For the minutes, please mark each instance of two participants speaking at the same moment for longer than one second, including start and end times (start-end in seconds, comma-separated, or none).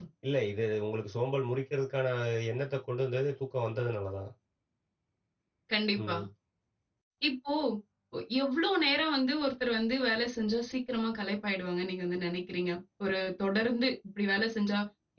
none